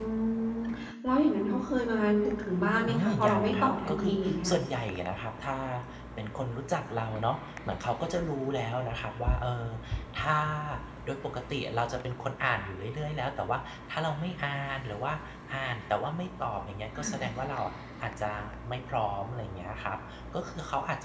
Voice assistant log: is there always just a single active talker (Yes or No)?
No